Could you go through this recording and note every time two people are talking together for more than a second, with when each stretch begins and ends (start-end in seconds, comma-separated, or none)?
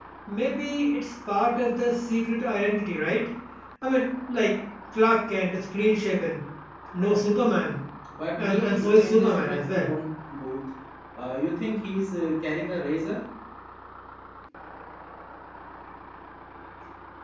8.4-9.9